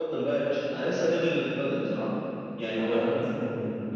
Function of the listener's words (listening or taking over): taking over